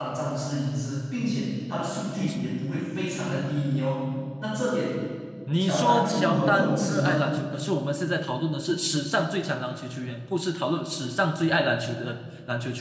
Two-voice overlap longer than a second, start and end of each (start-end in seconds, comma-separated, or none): 5.6-7.2